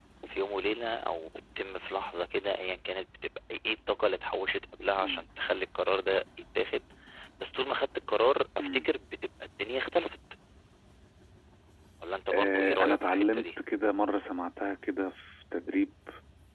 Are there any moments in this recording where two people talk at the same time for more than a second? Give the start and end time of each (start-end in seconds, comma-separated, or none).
12.3-13.6